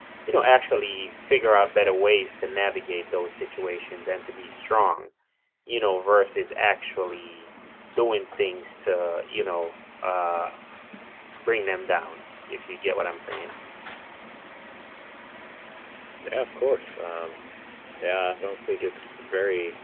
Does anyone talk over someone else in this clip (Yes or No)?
No